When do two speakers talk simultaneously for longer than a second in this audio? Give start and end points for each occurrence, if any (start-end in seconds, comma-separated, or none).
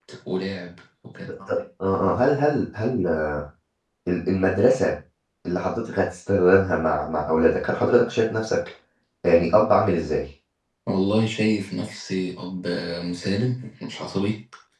none